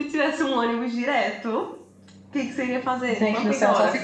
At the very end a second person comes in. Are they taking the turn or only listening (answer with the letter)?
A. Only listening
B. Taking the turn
B